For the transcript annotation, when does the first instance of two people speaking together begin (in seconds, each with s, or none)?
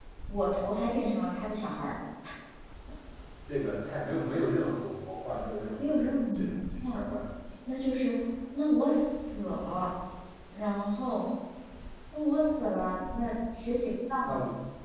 5.8 s